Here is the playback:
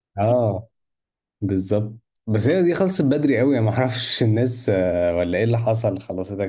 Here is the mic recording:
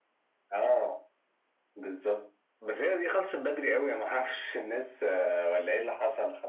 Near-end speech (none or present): none